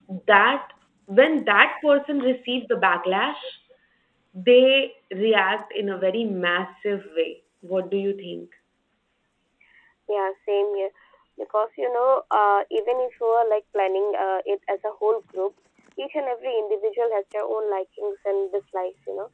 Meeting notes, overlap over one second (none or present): none